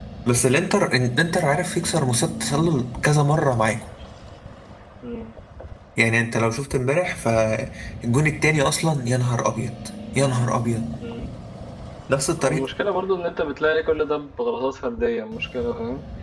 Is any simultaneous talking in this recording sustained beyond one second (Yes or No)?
No